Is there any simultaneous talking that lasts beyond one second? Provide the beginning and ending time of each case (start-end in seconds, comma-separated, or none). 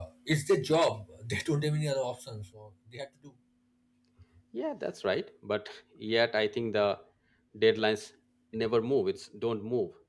none